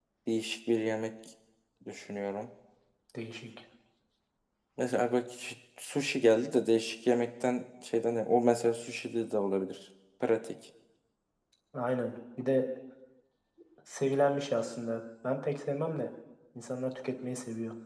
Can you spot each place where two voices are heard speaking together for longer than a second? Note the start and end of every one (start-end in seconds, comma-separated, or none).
none